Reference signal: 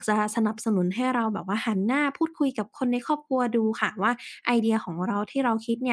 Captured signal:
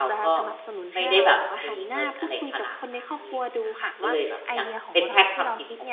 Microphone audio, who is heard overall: both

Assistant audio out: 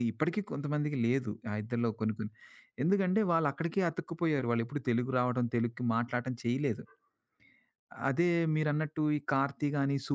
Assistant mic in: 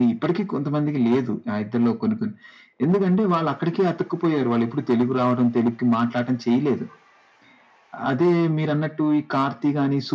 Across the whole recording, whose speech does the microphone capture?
echo only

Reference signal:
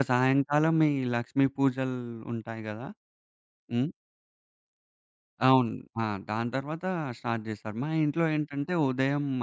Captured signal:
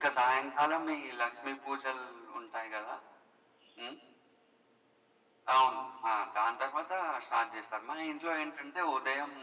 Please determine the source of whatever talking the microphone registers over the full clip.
echo only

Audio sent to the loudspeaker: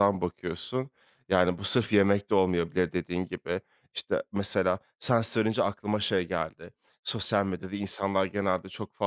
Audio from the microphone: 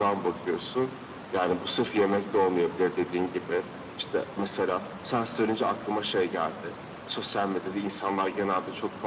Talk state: echo only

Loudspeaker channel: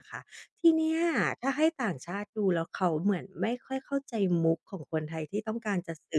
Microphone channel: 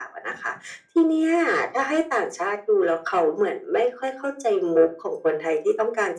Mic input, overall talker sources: echo only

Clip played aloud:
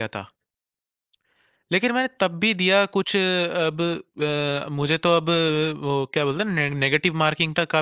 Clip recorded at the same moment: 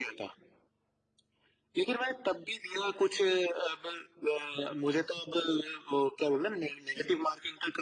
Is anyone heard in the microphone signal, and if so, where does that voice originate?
echo only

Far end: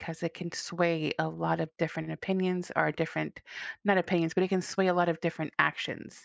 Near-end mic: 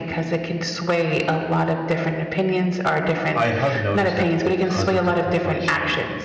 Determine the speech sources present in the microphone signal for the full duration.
both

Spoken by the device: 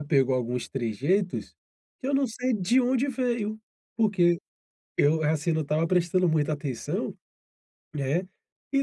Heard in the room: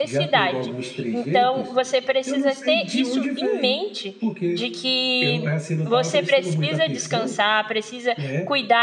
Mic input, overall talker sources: both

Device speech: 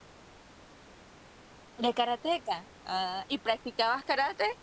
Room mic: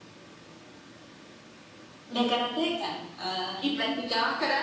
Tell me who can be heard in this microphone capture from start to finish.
echo only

